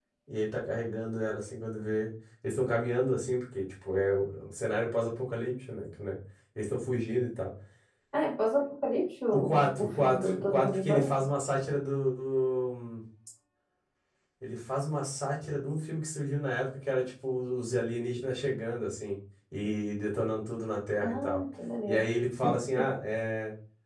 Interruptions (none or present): present